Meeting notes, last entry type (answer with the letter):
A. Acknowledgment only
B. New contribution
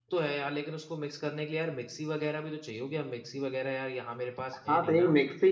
B